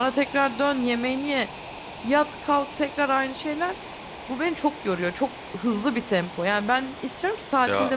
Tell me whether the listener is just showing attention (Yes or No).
Yes